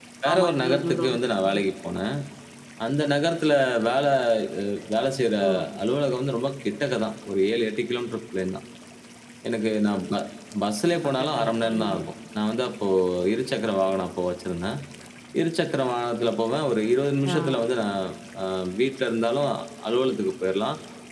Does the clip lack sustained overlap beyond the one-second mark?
No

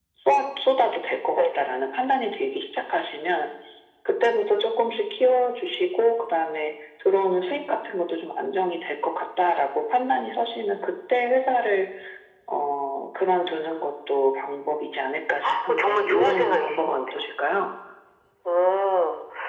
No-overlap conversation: No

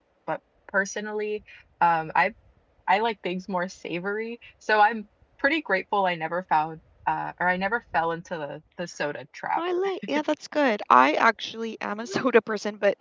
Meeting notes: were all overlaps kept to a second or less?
Yes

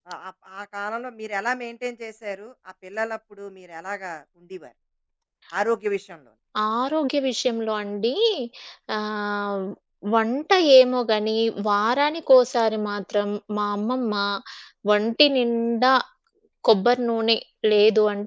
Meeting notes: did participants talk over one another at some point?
No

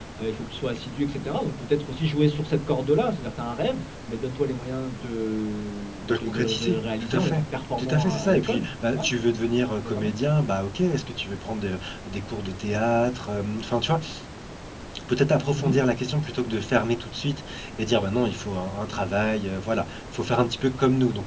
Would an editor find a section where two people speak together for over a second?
Yes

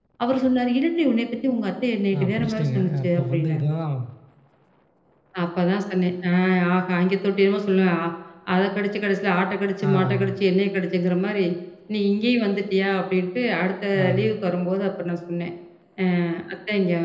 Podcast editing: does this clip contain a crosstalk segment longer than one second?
Yes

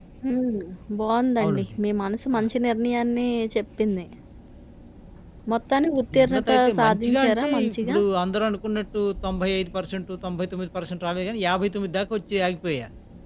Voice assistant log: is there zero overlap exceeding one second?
No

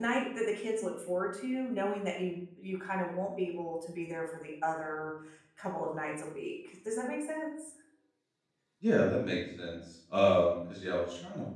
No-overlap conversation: Yes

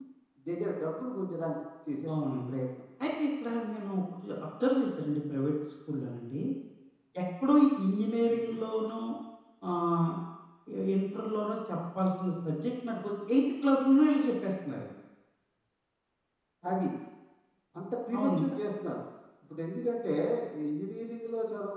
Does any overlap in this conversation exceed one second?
No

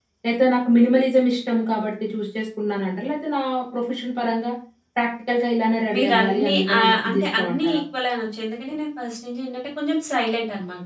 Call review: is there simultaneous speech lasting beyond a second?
Yes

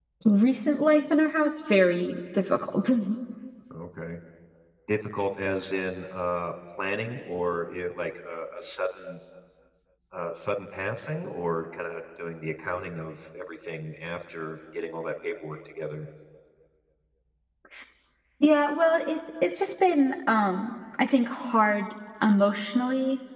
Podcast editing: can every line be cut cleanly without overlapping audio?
Yes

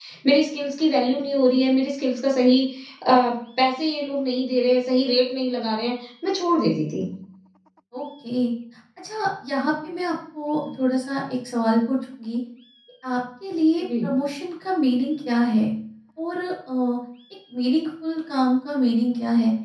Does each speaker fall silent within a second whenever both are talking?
Yes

